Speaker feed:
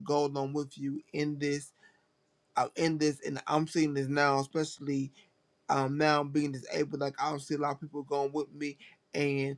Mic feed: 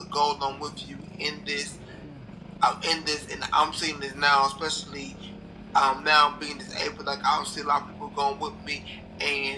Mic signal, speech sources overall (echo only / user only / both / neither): echo only